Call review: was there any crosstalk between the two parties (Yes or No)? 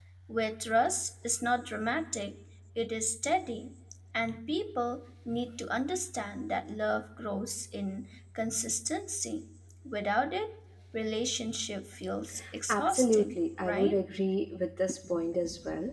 Yes